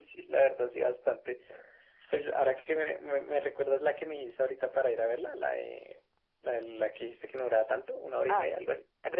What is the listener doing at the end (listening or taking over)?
taking over